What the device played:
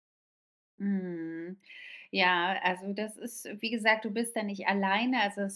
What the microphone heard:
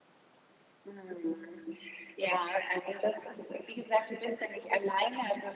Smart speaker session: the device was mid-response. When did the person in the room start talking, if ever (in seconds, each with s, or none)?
none